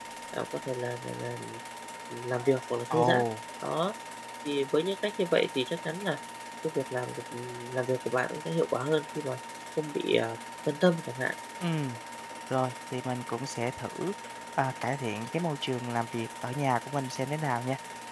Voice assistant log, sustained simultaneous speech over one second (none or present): none